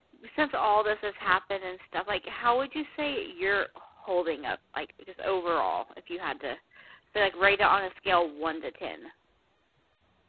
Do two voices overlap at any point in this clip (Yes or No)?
No